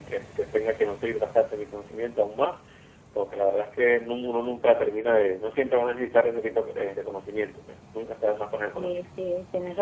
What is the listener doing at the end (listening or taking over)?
taking over